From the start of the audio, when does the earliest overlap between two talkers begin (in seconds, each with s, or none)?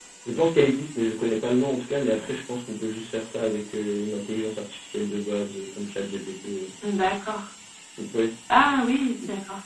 none